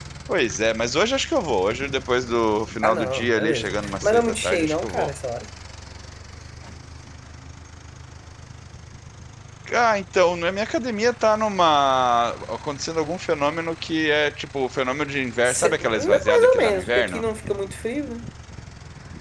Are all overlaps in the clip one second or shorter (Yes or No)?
No